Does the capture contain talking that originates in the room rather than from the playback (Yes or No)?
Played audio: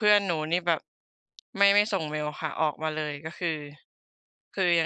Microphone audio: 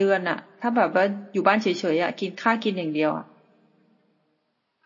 Yes